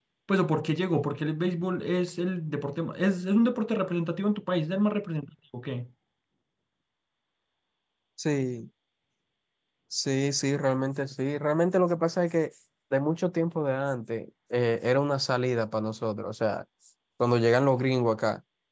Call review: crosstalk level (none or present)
none